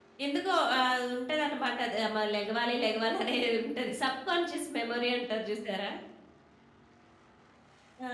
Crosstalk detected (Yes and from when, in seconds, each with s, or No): No